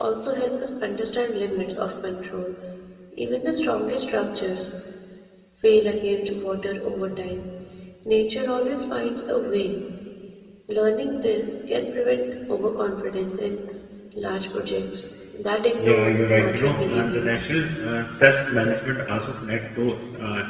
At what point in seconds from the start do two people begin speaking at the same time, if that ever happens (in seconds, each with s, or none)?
15.8 s